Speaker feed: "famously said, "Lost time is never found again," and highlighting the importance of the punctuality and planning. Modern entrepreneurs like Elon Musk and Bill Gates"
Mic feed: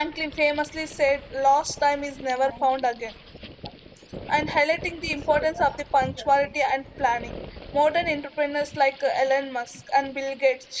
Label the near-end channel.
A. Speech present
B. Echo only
B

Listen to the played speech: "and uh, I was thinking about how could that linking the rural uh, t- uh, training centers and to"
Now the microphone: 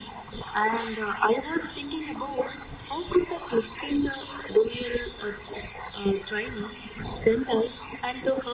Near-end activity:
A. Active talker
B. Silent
B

